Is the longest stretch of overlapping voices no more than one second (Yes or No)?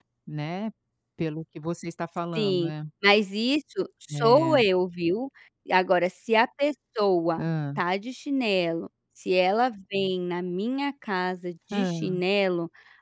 Yes